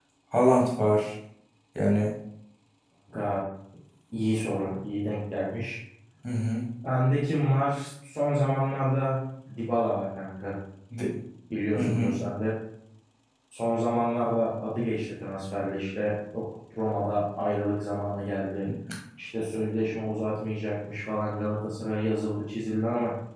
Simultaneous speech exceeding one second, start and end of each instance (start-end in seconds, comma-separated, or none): none